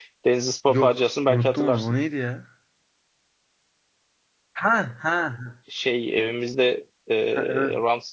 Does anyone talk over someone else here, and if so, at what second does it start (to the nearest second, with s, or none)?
1 s